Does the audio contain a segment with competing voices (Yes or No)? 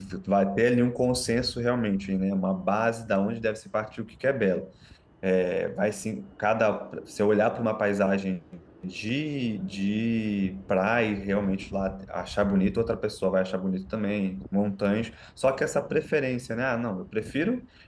No